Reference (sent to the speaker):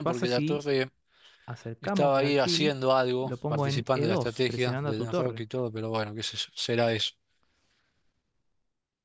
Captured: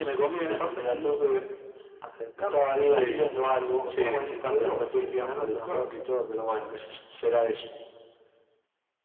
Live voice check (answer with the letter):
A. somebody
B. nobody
A